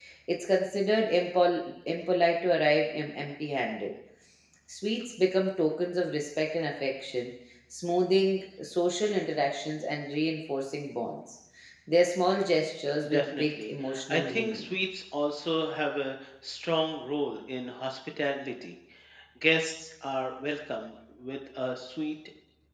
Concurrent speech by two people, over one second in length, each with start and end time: 13.1-14.7

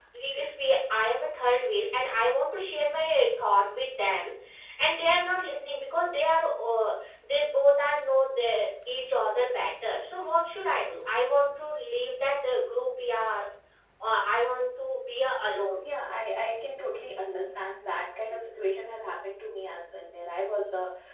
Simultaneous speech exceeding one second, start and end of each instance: none

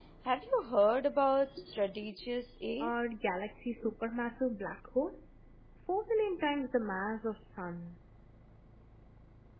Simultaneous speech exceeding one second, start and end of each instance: none

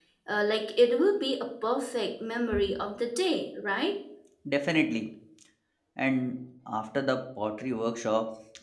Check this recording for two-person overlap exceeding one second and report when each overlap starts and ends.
none

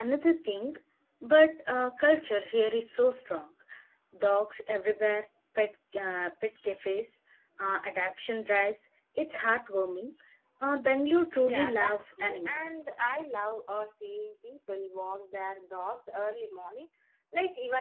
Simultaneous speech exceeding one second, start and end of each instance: 11.4-12.8

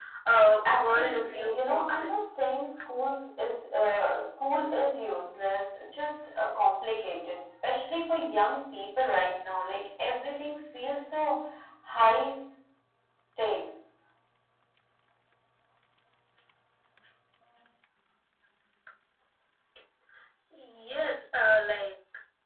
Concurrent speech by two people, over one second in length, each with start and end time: 0.7-2.1

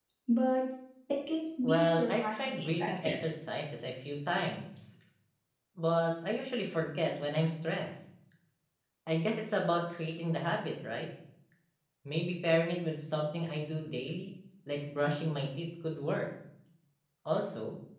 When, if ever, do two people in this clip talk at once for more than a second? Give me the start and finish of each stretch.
1.6-3.1

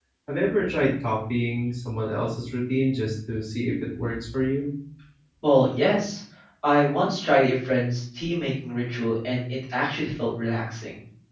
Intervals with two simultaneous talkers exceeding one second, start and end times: none

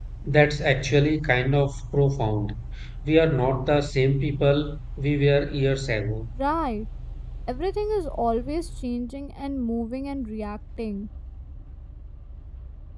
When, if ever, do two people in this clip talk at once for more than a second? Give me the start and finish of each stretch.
none

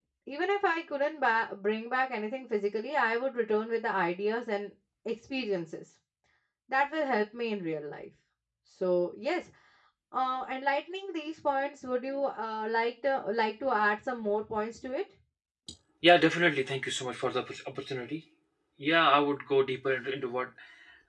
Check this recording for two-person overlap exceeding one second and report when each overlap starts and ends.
none

